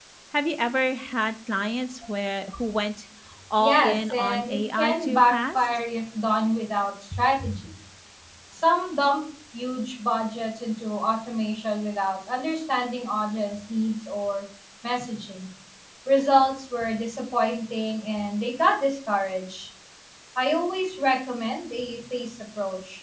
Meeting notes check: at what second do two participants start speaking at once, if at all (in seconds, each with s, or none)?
3.6 s